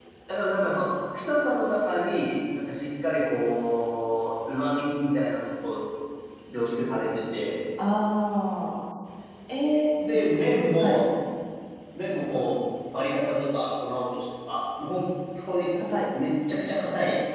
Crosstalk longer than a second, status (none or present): none